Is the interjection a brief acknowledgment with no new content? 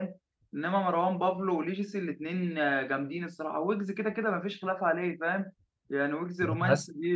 Yes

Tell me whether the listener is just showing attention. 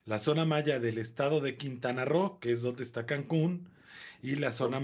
Yes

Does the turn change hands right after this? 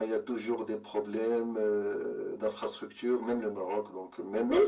Yes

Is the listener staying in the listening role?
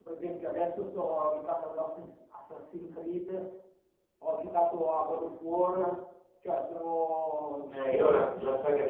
No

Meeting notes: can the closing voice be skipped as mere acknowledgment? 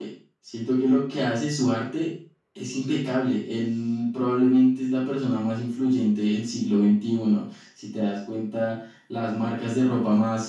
Yes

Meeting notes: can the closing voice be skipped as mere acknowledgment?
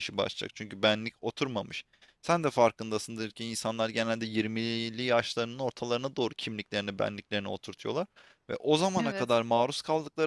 Yes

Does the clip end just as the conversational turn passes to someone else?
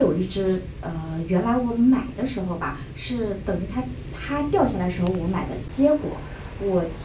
No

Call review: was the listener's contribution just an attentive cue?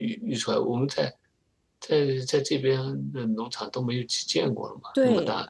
No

